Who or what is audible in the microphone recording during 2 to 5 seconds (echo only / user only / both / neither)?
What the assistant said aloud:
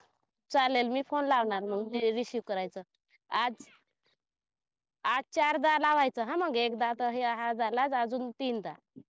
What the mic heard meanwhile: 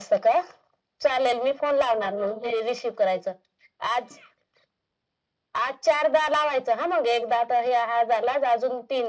echo only